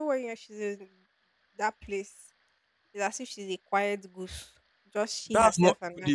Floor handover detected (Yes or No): Yes